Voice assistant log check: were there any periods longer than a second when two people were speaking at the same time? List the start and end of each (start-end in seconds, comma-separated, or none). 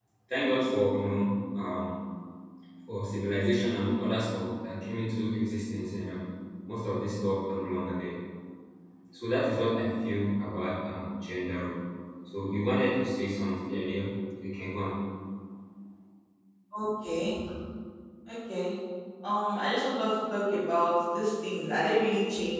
none